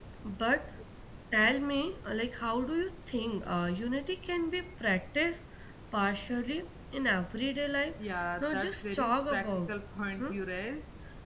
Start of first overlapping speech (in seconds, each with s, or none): 8.4 s